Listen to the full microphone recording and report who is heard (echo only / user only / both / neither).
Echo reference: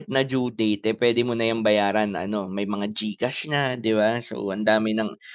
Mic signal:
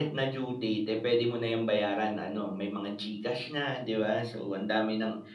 echo only